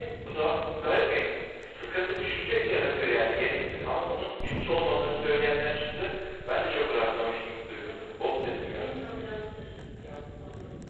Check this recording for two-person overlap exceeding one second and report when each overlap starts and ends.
none

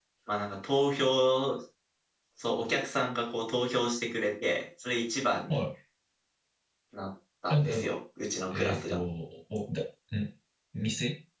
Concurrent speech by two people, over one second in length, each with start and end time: none

